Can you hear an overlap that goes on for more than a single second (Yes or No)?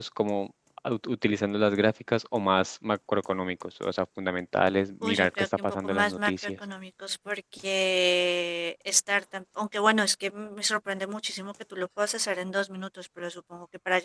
Yes